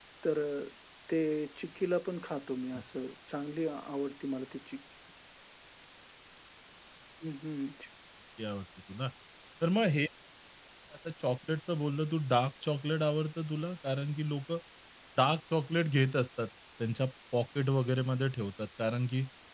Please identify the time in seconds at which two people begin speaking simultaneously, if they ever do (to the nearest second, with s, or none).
none